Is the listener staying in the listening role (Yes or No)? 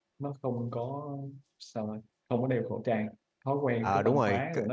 No